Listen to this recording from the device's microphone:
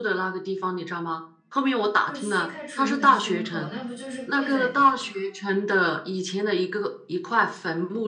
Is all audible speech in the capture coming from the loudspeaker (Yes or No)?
No